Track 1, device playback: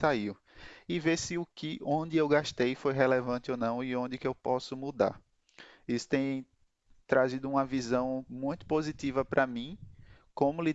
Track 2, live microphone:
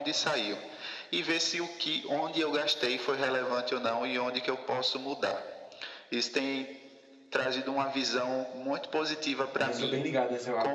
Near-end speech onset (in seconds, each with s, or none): 9.5 s